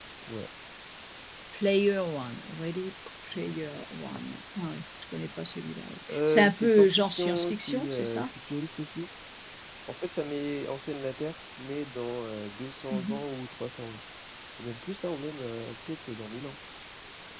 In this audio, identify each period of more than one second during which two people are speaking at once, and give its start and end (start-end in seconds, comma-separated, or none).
6.1-8.2